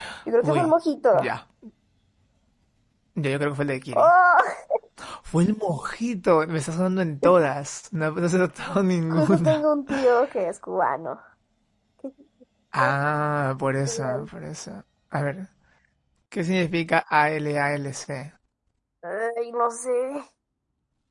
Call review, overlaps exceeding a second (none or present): none